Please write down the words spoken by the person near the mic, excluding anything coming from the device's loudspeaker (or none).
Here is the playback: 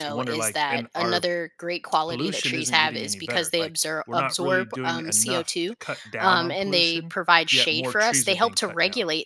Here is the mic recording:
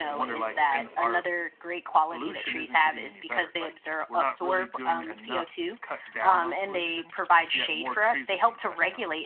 none